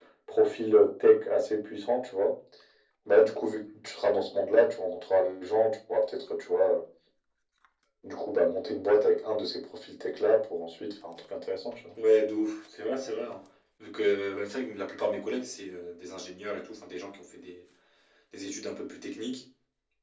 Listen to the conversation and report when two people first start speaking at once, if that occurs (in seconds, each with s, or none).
none